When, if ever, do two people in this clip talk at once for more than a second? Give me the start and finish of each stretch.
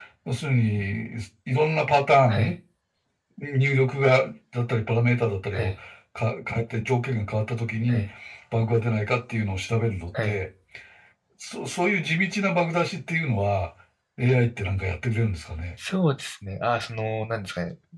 none

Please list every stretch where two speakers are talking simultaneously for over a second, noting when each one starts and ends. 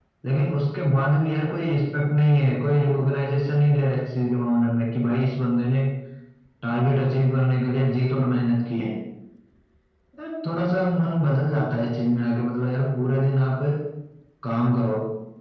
none

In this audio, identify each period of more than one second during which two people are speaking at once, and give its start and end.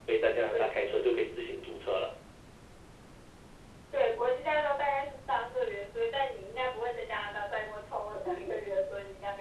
none

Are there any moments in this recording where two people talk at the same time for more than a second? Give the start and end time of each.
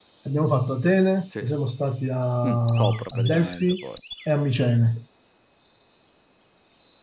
2.5-3.8

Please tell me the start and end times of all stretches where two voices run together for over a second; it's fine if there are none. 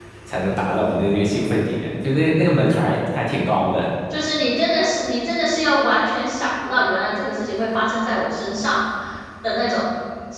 none

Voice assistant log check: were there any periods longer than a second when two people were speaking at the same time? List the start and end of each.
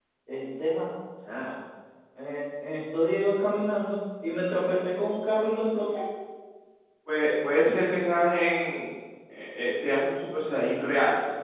none

